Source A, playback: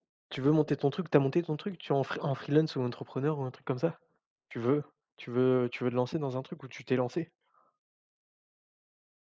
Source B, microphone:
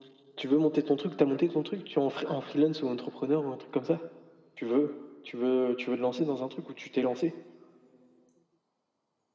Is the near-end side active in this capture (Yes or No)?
No